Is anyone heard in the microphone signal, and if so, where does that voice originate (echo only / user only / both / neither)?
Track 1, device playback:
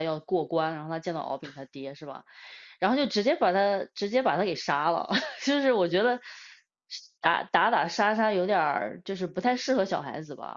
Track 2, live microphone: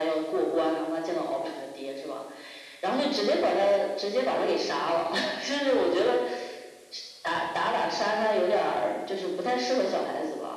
echo only